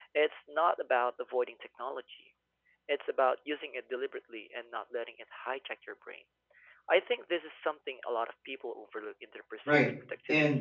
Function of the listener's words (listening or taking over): taking over